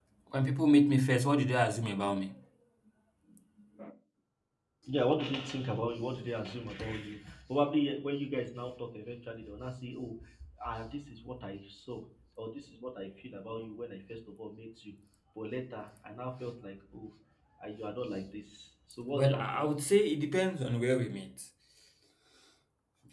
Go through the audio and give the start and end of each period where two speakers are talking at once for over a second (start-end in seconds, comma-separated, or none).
none